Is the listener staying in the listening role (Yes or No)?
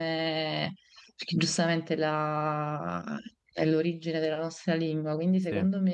Yes